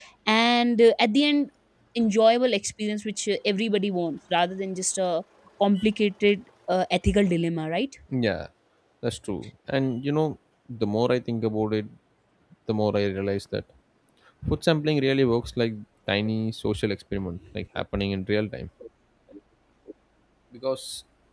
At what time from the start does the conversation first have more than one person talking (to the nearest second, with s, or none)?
none